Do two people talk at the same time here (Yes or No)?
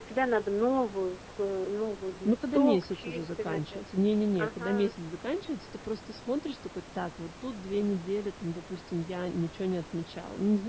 Yes